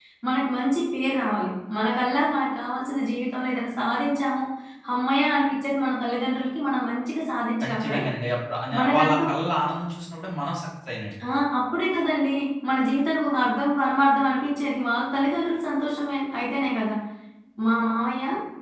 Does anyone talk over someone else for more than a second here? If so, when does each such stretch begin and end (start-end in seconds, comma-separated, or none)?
none